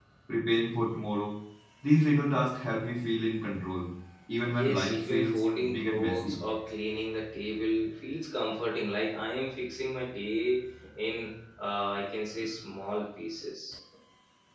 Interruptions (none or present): present